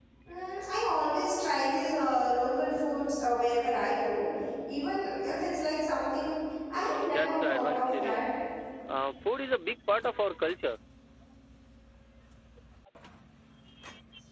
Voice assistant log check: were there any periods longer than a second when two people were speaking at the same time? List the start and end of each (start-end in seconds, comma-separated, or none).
6.7-8.2